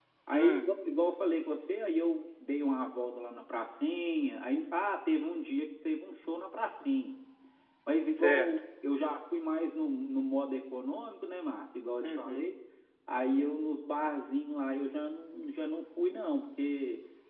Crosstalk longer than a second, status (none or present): none